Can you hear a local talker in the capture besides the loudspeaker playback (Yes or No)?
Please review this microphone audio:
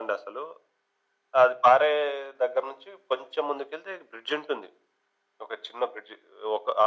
No